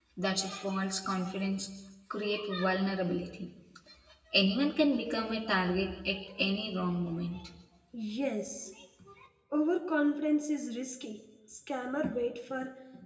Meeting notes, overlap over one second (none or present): none